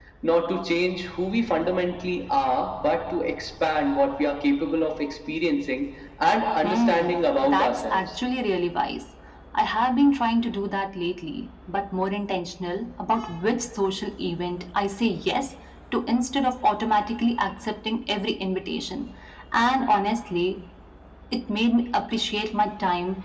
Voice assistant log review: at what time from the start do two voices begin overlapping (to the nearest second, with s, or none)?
7 s